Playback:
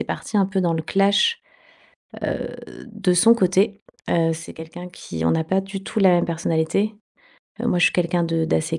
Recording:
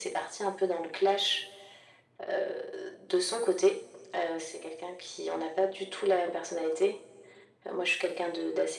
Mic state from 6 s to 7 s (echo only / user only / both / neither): echo only